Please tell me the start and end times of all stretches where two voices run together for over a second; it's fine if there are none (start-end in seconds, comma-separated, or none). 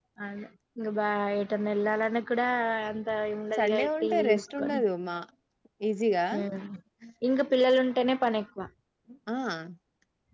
3.6-4.8